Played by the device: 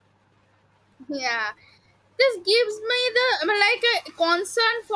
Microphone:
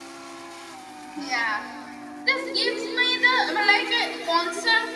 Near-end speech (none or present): none